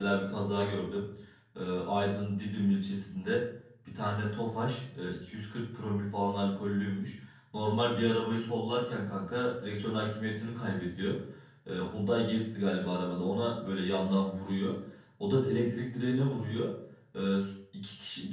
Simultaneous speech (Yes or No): No